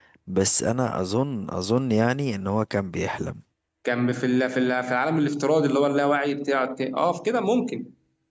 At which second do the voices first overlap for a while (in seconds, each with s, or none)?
none